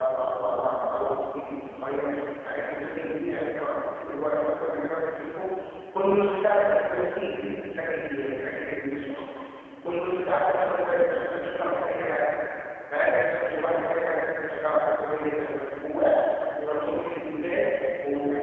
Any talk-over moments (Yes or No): No